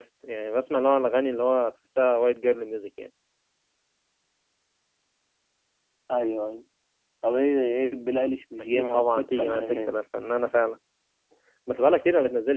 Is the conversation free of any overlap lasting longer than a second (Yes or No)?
No